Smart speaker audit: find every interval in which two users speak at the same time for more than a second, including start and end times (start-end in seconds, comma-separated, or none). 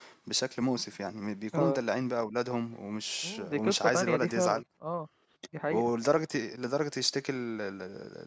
3.2-4.6